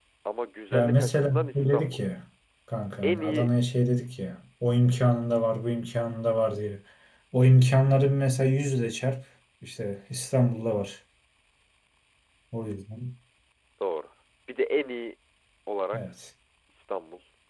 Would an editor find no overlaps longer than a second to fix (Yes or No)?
No